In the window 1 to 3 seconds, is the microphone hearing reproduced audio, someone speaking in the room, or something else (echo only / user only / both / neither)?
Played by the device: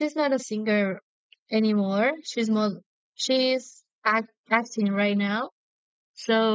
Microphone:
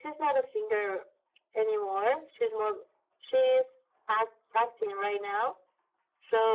echo only